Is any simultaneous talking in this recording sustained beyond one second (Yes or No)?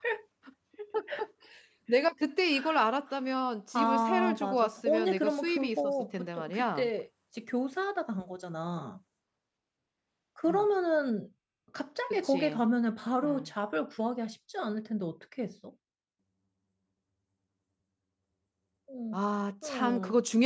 Yes